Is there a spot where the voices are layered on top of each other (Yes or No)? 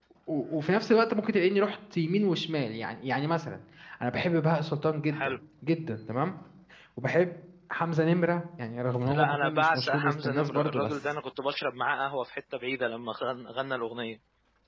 Yes